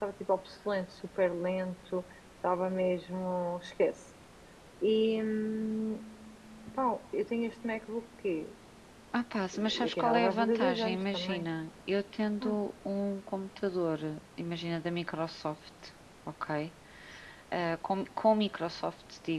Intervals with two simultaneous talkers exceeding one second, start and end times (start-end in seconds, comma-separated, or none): 9.8-11.5